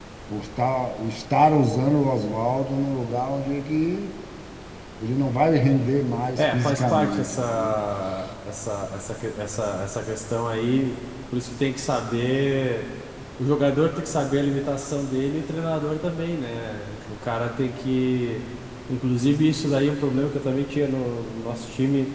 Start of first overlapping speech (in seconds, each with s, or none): 6.4 s